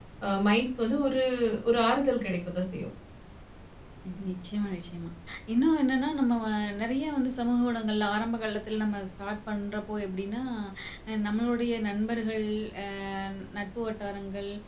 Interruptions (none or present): none